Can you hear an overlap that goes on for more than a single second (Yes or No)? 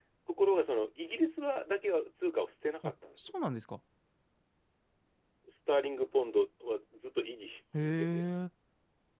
No